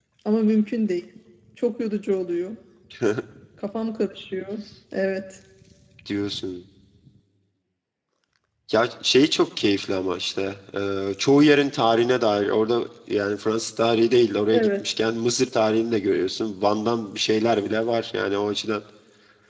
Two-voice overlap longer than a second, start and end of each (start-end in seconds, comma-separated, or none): none